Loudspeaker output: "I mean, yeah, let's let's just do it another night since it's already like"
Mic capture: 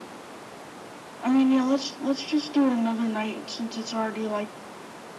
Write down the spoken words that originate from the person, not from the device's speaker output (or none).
none